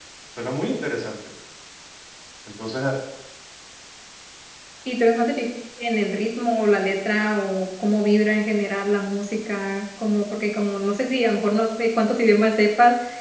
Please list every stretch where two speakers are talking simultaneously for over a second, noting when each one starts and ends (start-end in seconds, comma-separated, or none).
none